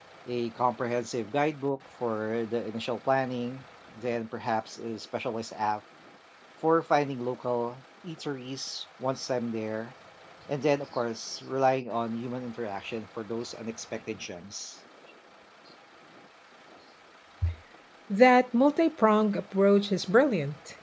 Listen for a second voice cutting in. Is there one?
No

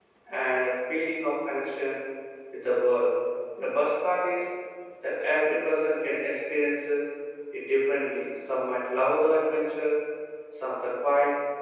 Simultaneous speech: No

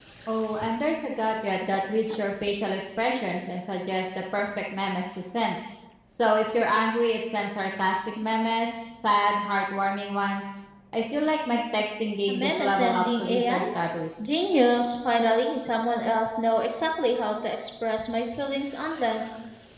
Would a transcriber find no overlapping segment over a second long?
No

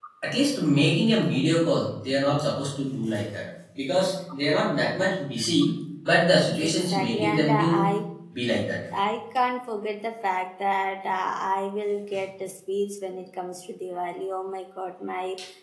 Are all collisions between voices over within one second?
No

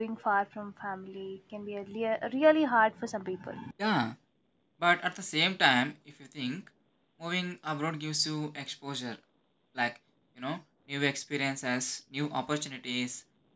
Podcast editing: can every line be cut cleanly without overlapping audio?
Yes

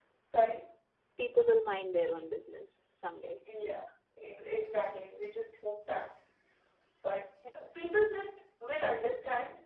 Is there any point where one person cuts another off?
No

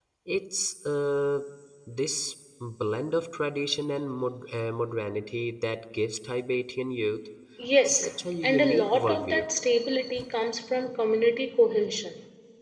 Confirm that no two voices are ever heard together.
No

